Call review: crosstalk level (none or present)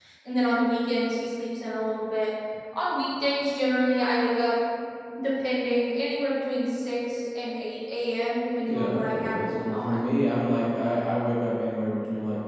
present